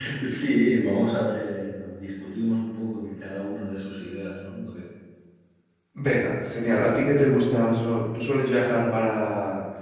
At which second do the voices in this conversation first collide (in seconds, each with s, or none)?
none